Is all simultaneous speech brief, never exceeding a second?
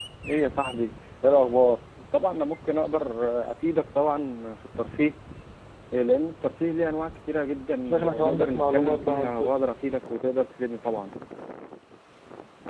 No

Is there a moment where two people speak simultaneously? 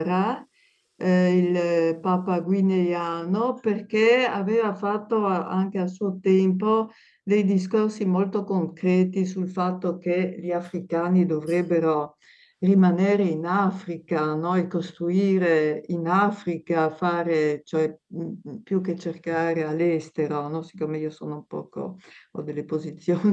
No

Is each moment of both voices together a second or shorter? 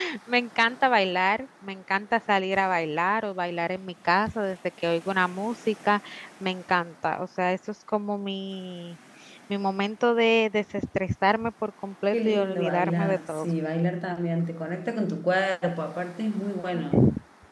No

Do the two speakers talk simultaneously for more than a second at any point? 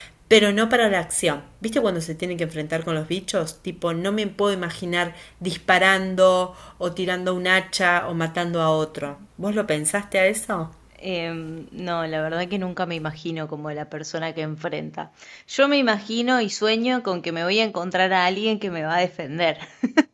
No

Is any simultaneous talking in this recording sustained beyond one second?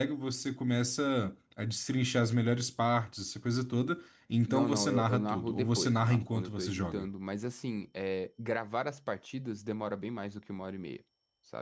Yes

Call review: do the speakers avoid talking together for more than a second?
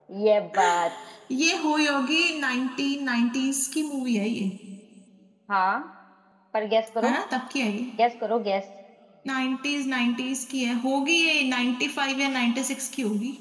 Yes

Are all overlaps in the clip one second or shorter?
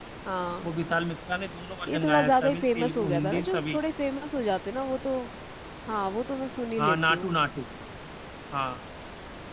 No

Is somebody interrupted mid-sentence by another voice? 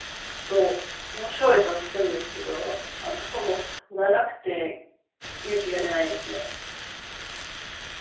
No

